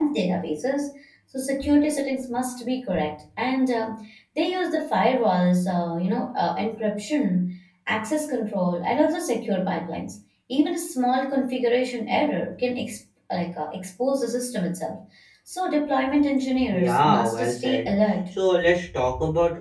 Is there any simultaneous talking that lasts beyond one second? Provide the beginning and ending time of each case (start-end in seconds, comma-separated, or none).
16.7-18.3